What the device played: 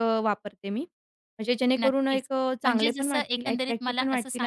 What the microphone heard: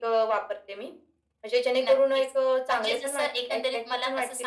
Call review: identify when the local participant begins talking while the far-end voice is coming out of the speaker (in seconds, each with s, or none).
none